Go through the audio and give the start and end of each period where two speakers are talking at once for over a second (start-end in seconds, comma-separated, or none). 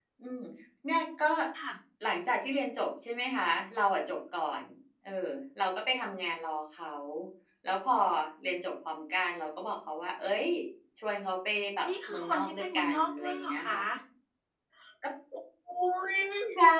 11.9-13.8